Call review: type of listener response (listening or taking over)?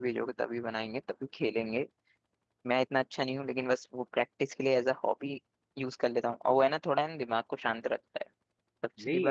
taking over